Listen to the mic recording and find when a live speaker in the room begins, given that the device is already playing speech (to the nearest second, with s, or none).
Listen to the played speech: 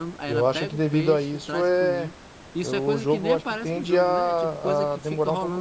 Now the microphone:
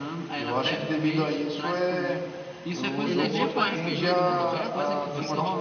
3 s